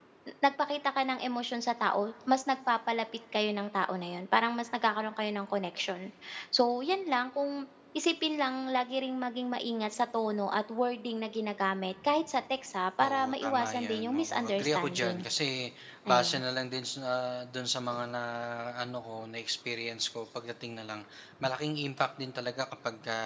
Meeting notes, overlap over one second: present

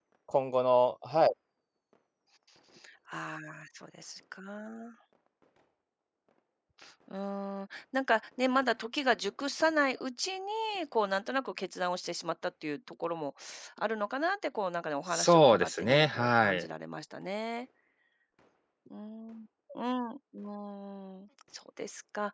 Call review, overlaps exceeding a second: present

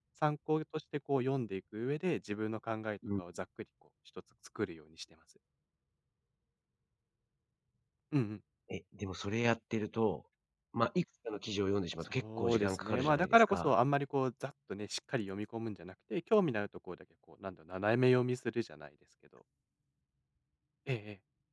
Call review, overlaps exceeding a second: present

